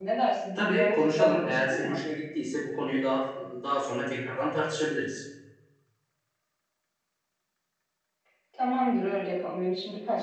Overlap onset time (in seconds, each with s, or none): 0.6 s